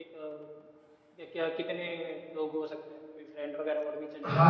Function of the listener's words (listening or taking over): taking over